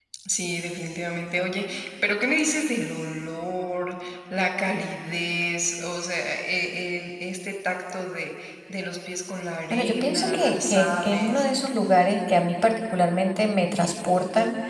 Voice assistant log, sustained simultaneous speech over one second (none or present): present